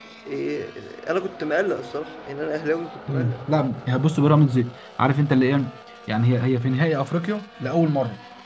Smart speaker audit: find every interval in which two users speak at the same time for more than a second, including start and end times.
none

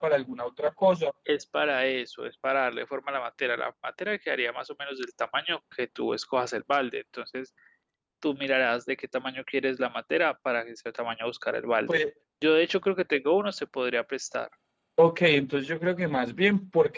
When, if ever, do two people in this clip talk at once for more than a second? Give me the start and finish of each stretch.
none

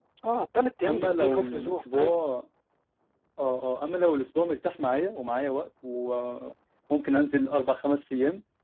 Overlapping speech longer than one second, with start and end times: 0.9-2.2

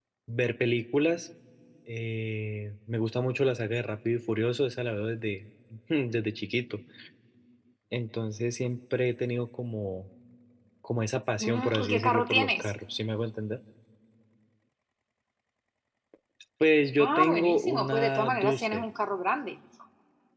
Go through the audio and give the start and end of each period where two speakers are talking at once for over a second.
11.4-12.7, 17.0-18.8

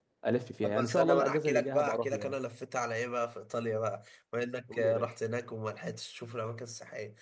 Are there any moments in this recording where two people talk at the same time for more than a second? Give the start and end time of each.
0.6-2.4

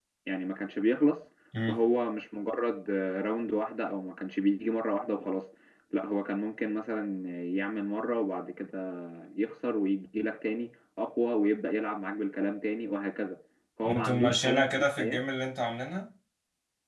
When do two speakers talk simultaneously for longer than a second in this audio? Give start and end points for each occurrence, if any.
13.8-15.2

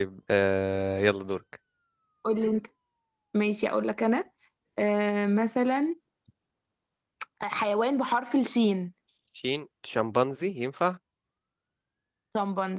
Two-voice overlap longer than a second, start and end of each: none

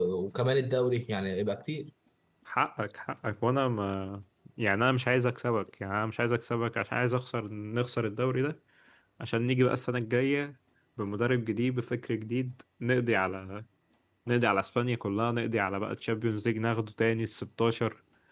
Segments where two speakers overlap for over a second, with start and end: none

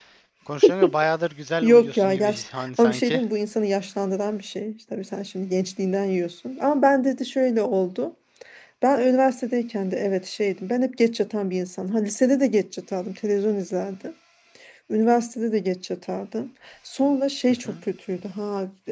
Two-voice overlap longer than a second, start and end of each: 1.6-3.2

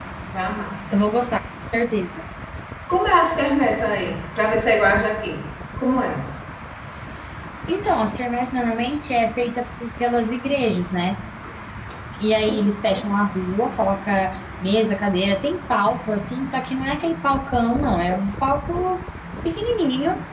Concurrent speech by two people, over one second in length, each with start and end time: none

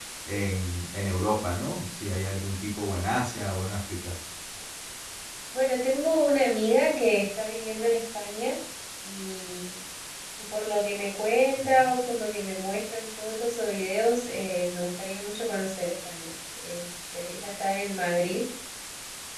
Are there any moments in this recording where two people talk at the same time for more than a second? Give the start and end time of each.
none

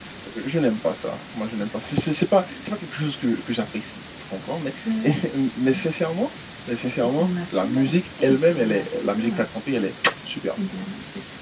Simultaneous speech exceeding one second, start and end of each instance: 7.1-9.4

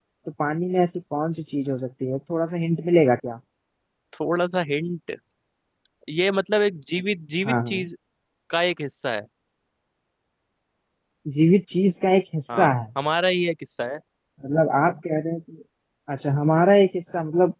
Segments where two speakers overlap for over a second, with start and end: none

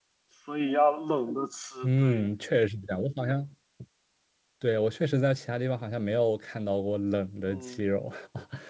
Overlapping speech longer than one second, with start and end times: none

